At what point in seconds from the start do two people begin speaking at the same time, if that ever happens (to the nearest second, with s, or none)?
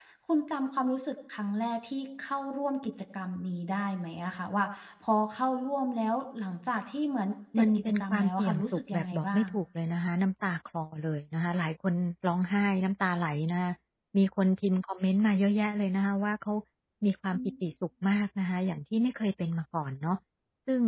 8 s